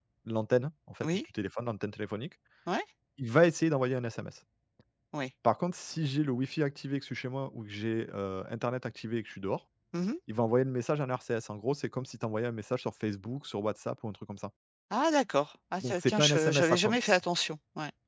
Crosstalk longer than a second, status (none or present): present